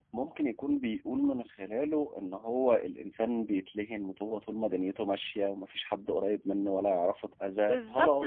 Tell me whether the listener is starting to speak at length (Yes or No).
Yes